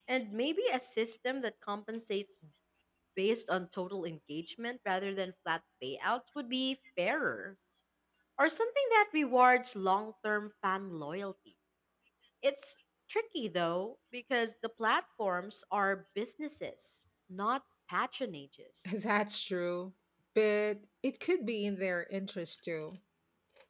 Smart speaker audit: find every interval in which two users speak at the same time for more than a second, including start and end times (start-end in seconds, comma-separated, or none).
none